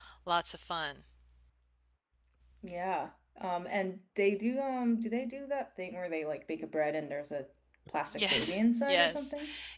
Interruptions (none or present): present